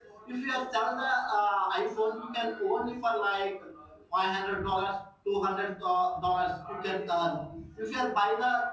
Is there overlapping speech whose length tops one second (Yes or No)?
No